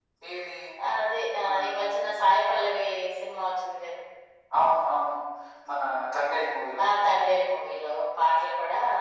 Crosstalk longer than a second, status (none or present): none